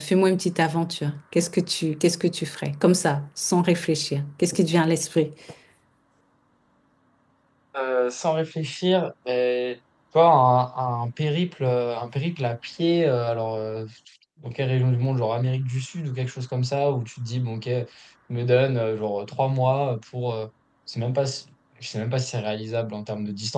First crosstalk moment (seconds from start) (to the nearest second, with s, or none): none